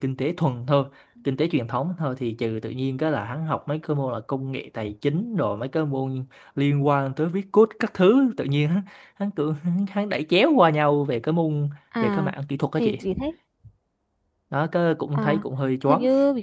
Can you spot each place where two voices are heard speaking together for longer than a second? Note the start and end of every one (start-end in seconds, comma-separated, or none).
none